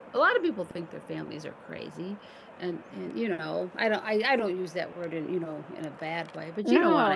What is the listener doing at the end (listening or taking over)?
taking over